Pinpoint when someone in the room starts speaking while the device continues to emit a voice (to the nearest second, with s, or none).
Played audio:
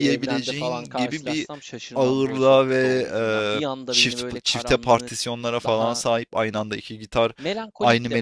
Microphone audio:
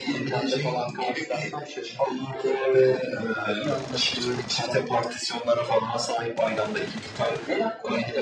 none